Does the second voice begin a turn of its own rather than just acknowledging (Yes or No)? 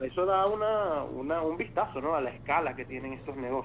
Yes